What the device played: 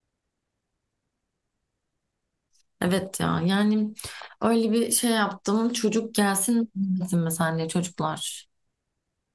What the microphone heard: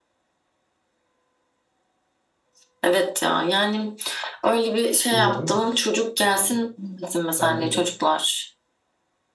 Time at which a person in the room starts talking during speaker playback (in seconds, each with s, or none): 5.1 s